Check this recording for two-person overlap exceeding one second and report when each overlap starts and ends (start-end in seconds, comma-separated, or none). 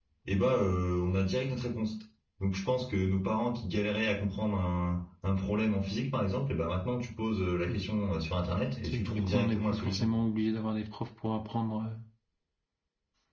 8.9-10.2